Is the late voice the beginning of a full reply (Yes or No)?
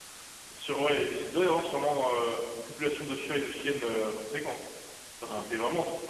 No